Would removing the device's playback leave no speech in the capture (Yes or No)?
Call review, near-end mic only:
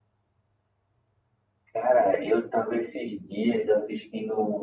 Yes